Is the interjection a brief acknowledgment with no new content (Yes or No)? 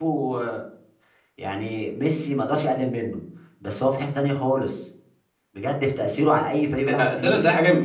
No